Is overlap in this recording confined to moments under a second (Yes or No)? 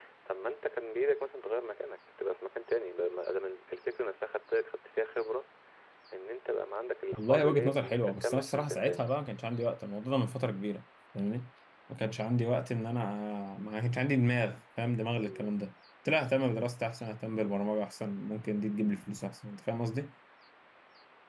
No